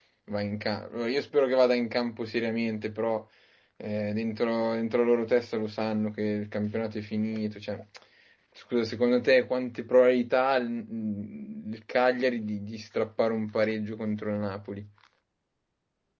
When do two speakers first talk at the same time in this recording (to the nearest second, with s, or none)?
none